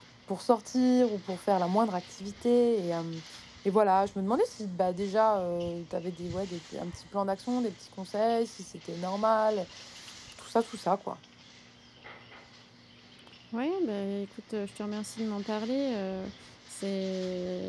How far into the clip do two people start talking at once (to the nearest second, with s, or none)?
none